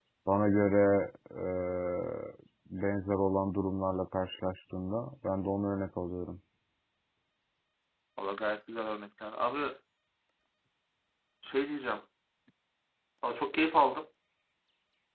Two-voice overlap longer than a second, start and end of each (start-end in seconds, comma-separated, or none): none